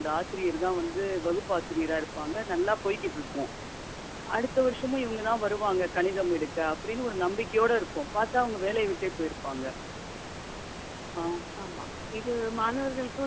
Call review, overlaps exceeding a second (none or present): none